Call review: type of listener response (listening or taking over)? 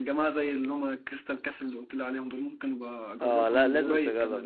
taking over